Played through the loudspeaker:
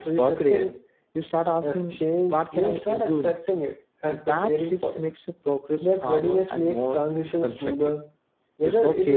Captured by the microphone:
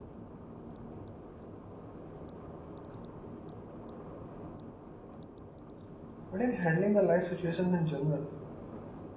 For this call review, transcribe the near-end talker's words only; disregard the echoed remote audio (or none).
but in handling the life situations in general.